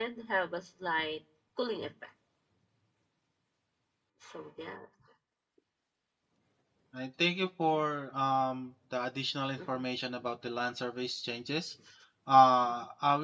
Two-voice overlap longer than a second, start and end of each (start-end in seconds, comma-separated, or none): none